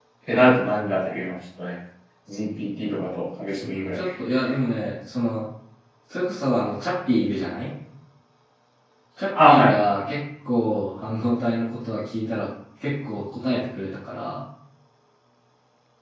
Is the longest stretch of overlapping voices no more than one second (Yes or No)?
Yes